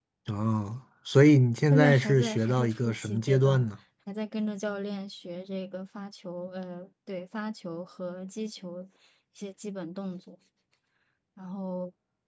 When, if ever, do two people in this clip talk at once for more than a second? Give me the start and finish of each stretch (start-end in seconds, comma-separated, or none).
1.7-3.6